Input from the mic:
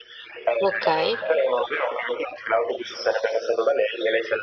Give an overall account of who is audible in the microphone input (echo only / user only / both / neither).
both